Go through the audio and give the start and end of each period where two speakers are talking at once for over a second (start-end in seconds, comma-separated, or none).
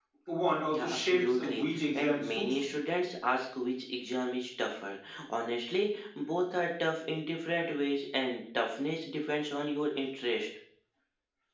0.7-2.8